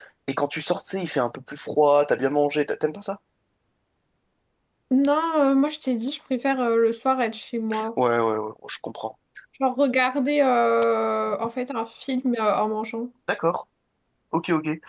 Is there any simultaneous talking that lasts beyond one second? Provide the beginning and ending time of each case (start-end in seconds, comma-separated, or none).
none